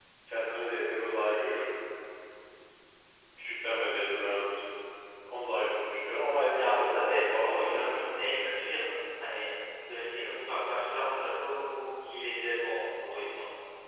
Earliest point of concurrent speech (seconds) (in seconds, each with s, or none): 6.6 s